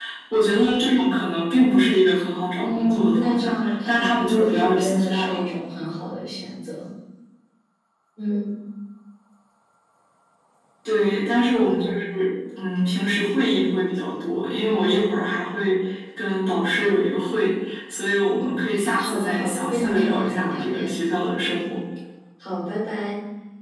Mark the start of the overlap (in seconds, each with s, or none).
2.6 s